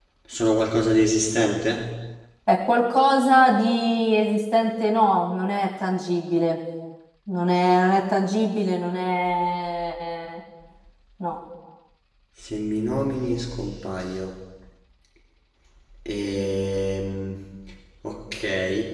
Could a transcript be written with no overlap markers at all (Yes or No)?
Yes